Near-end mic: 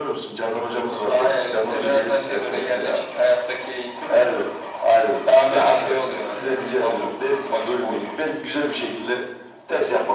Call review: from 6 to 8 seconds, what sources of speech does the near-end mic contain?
echo only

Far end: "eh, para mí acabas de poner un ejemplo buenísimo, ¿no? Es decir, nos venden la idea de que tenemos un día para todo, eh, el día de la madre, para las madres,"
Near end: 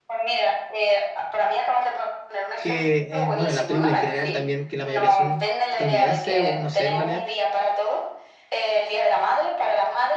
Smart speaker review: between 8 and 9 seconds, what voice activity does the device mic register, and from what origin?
echo only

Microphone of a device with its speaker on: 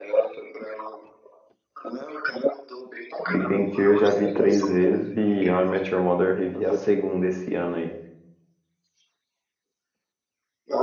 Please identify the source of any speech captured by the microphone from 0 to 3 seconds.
echo only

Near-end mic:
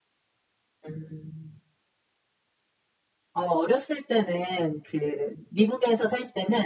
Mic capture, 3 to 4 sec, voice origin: echo only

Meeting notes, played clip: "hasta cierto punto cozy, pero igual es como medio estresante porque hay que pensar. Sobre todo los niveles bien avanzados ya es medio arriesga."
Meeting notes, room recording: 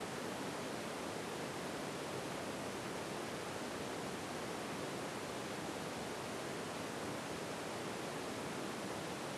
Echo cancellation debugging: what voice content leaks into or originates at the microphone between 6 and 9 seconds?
neither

